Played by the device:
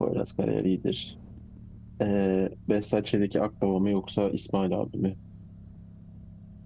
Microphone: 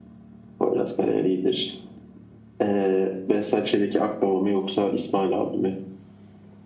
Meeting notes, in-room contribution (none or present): none